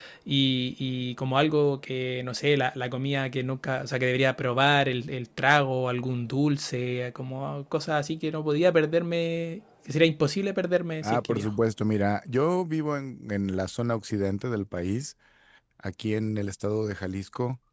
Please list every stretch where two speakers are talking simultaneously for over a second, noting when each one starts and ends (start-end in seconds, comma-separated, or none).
none